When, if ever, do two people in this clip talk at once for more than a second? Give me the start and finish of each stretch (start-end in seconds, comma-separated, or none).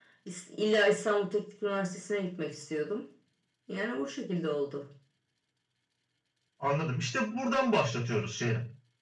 none